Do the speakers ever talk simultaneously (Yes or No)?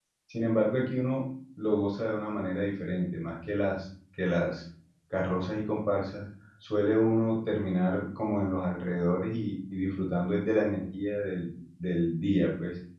No